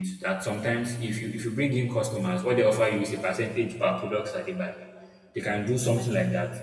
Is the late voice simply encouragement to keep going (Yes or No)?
Yes